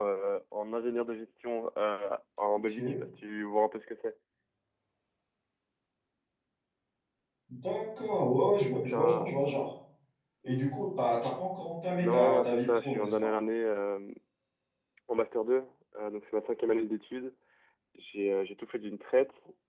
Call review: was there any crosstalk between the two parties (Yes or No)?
Yes